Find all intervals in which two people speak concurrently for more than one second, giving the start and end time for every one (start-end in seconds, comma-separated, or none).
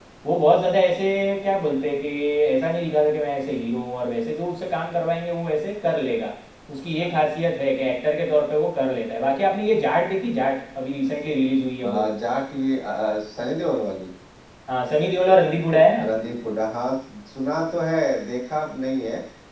none